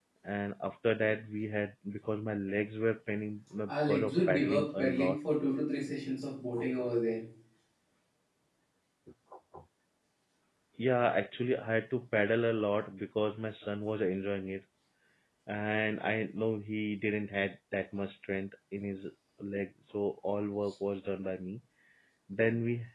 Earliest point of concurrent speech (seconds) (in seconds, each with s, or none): 3.7 s